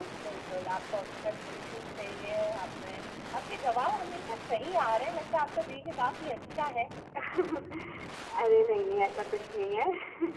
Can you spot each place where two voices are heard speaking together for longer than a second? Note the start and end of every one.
none

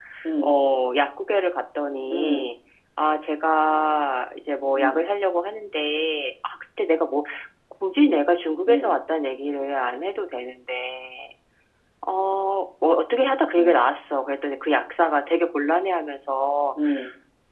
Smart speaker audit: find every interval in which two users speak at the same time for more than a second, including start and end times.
none

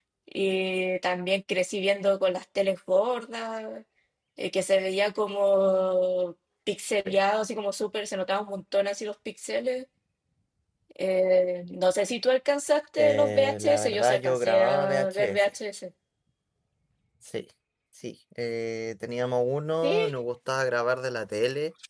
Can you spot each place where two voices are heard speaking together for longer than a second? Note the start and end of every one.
13.0-15.5

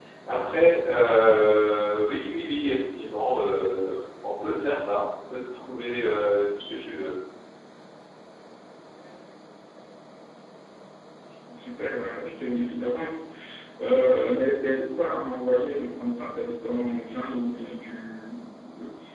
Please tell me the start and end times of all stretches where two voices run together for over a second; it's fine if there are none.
none

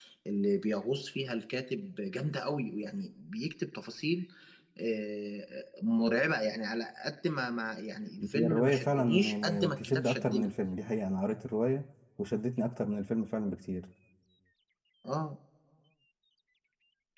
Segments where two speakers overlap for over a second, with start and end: 8.3-10.5

